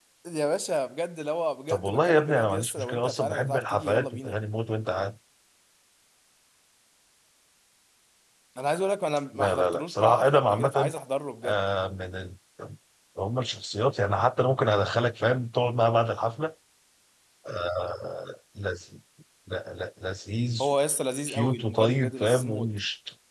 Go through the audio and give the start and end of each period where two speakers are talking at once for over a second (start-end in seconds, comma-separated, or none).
1.7-4.3, 9.3-10.9, 21.3-22.7